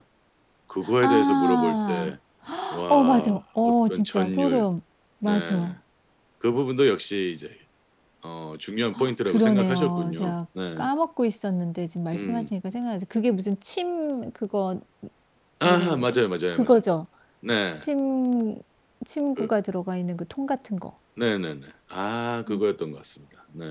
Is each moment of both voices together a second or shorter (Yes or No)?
No